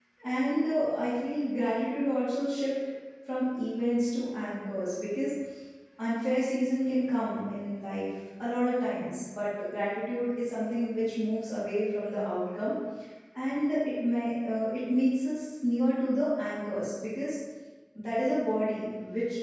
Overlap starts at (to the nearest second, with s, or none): none